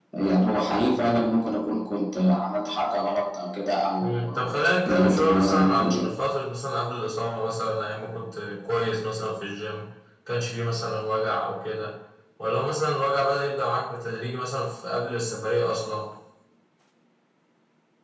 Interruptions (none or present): present